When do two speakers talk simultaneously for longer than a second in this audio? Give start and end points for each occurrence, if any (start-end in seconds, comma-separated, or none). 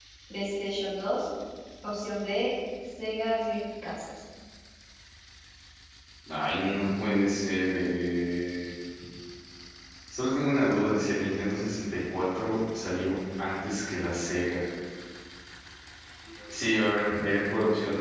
none